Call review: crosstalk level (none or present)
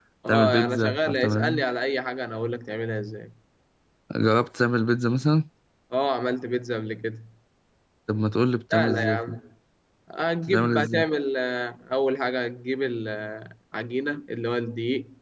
present